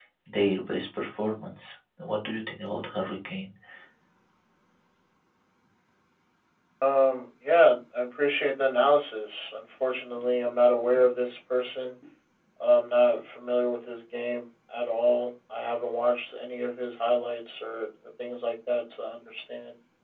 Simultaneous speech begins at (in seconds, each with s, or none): none